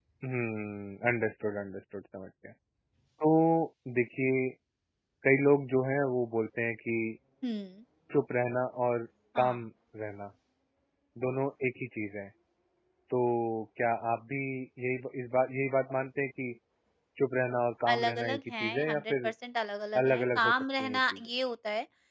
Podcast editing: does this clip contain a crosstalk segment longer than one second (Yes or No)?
Yes